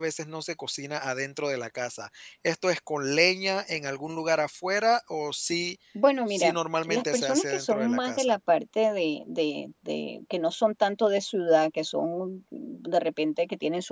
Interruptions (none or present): present